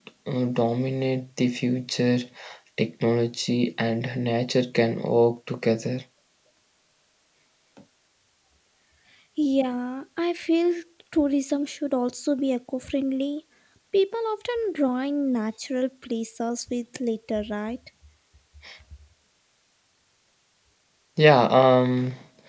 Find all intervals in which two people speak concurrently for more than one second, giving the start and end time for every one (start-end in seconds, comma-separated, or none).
none